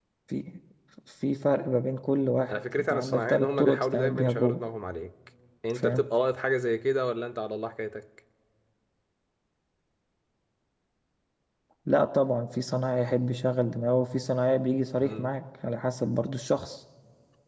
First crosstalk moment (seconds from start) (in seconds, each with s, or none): 2.5 s